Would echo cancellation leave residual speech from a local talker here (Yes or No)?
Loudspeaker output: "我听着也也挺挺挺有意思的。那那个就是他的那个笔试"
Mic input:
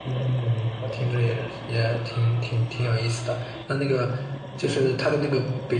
No